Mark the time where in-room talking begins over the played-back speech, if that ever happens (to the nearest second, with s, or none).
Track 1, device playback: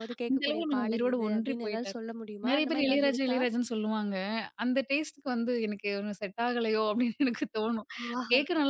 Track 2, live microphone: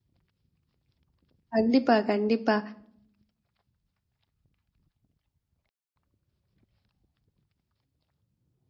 2 s